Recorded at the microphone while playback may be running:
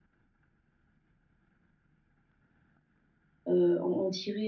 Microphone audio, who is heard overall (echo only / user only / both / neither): user only